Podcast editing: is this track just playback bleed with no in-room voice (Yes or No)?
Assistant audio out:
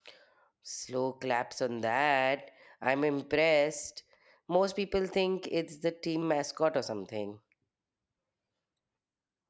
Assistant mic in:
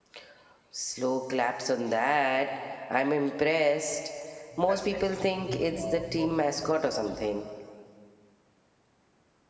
No